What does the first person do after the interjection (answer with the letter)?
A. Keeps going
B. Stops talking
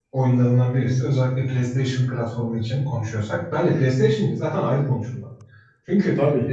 A